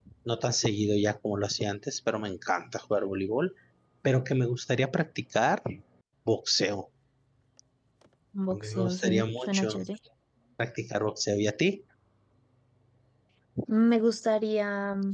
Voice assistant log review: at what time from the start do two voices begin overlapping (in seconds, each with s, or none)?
8.5 s